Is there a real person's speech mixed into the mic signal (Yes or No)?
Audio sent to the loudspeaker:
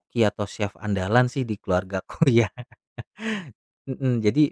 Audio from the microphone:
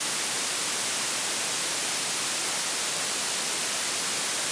No